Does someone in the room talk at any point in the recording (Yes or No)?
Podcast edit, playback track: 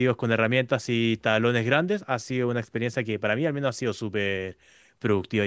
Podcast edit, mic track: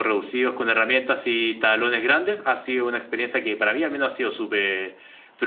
No